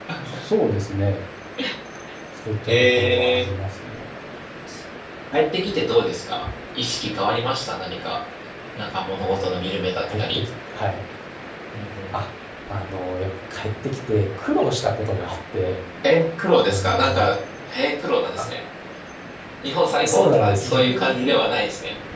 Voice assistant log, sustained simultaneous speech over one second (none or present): present